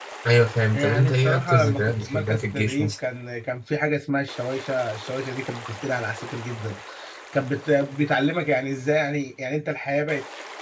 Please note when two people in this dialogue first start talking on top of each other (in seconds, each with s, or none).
0.7 s